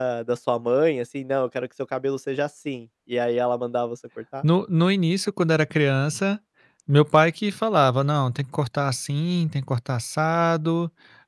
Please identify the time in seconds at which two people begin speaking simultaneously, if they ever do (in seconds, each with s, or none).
none